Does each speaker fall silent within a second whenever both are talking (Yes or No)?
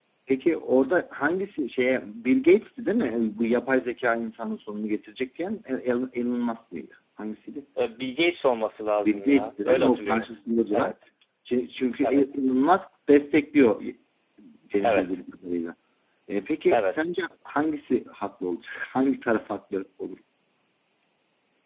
No